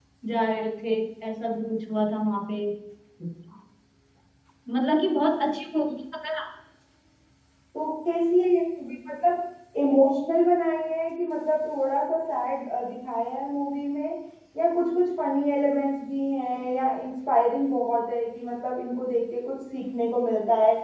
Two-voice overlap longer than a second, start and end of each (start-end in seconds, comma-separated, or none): none